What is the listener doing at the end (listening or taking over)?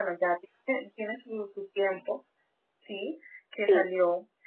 listening